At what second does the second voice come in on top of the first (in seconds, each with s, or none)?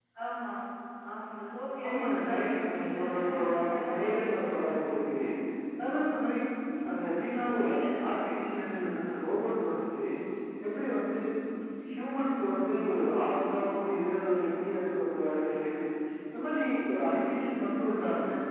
1.9 s